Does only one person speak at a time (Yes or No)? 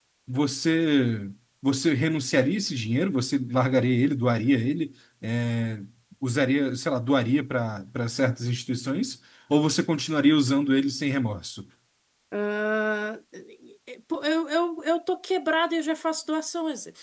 Yes